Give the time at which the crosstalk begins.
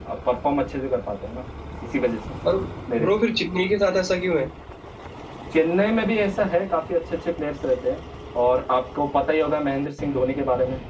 none

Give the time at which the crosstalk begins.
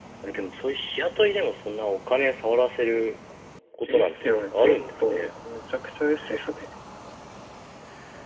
3.8 s

